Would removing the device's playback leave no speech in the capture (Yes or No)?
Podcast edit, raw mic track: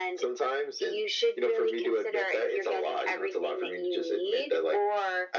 Yes